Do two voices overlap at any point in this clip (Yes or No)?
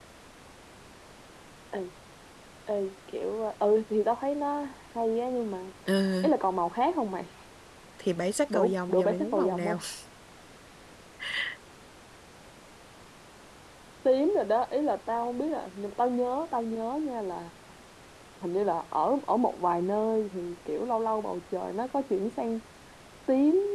Yes